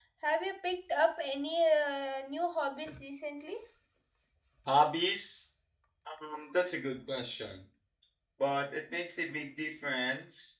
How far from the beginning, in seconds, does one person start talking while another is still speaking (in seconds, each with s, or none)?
none